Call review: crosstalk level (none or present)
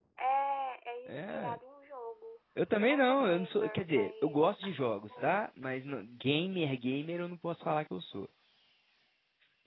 present